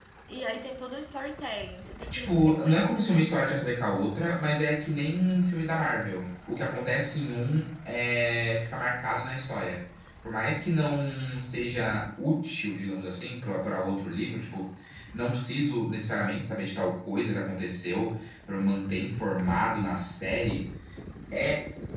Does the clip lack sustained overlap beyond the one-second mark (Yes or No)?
No